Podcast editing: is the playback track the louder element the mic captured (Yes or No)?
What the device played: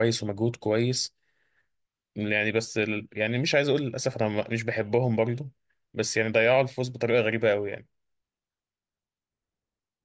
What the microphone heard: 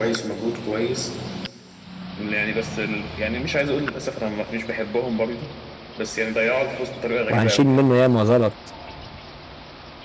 No